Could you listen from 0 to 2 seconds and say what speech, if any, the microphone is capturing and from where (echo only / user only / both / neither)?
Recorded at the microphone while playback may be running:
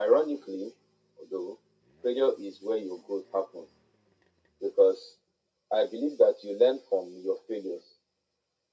echo only